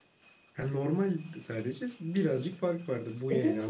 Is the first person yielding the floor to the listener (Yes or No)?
Yes